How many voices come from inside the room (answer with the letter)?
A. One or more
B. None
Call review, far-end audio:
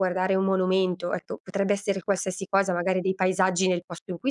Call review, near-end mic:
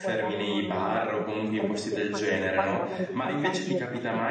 A